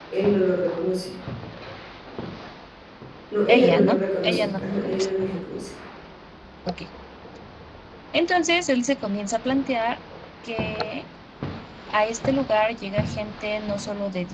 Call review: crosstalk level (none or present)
present